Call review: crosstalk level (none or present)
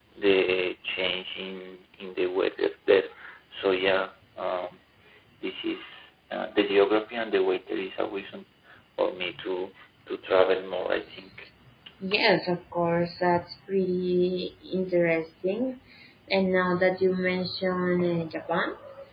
none